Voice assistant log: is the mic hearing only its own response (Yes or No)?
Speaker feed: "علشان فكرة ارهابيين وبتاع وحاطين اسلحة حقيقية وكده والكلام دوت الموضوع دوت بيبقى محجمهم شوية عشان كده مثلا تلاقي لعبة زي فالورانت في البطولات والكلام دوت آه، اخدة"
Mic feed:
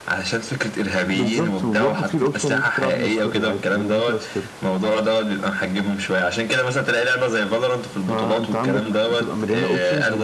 No